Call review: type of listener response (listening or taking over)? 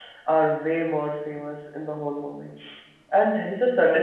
listening